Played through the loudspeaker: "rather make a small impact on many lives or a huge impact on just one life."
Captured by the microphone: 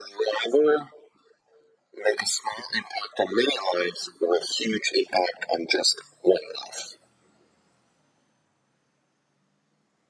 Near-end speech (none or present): none